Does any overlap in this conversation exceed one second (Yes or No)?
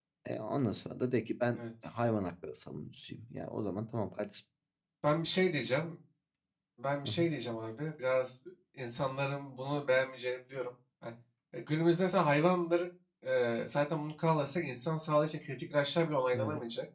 No